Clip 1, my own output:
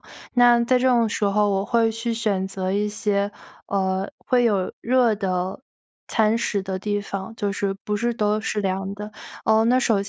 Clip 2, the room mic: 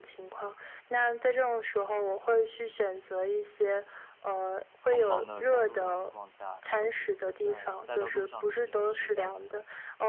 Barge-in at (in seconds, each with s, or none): 4.8 s